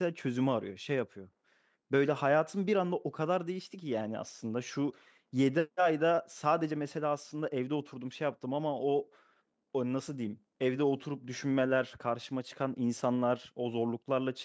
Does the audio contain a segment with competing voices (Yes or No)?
No